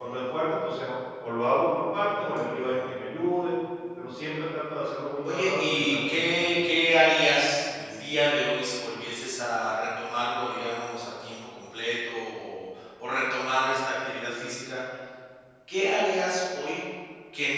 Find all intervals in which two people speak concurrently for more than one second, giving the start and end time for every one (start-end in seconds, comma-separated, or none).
5.3-6.5